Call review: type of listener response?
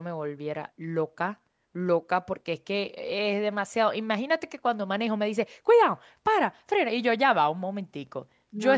listening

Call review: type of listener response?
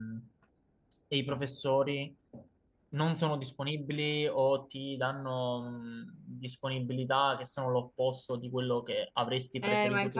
taking over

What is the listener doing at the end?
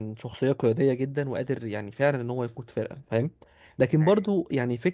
listening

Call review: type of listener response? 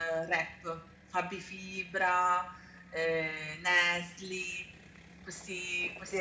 taking over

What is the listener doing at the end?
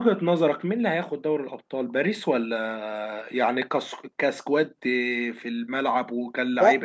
taking over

